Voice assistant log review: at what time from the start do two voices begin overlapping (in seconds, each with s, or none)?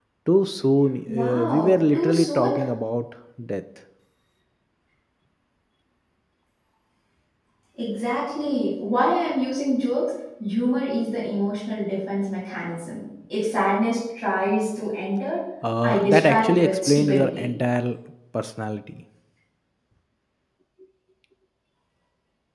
1.1 s